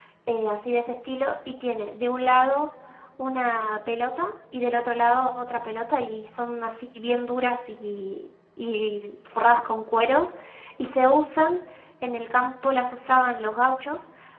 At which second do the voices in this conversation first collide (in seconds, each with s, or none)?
none